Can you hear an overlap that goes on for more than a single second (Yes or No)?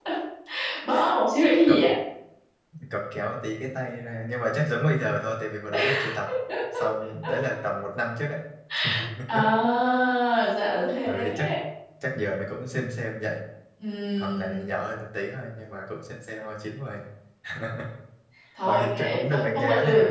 Yes